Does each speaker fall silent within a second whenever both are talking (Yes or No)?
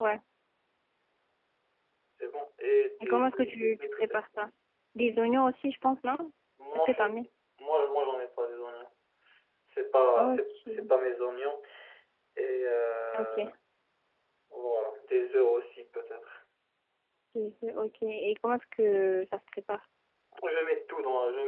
No